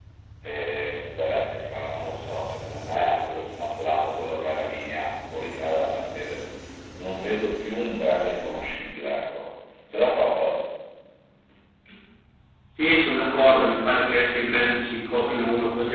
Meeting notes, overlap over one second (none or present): none